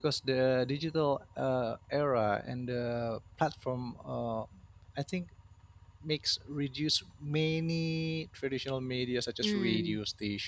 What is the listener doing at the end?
listening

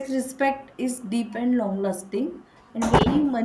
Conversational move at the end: listening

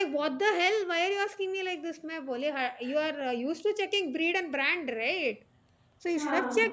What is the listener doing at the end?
listening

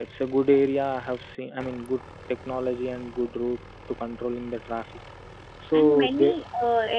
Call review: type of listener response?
taking over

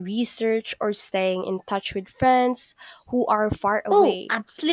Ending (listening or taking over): taking over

